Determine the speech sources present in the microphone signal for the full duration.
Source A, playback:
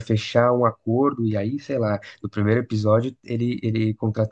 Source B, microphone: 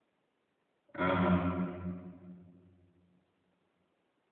user only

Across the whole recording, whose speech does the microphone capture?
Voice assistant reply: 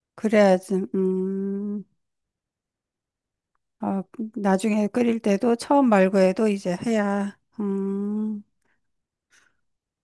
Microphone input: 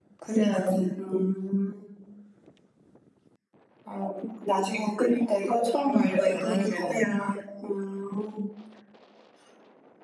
both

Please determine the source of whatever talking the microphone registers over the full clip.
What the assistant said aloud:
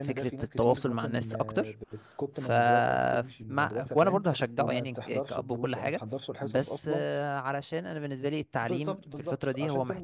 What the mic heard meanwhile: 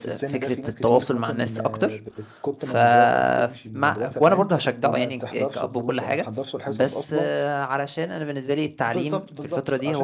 echo only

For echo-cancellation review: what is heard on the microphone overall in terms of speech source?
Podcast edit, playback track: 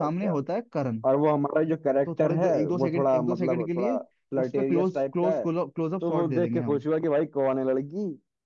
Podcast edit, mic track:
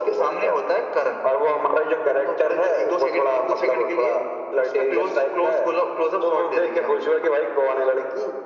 echo only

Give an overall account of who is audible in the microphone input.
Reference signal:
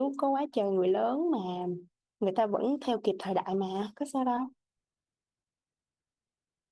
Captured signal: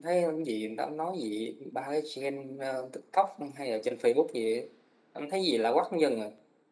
user only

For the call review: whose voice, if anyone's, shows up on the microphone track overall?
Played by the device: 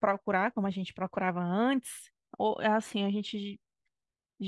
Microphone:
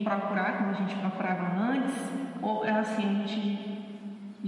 echo only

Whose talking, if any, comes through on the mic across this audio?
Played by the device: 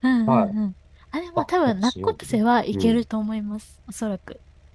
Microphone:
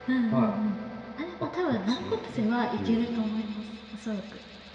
echo only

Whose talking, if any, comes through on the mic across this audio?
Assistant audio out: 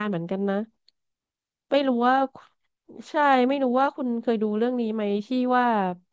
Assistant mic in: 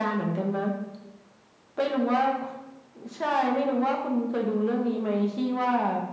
echo only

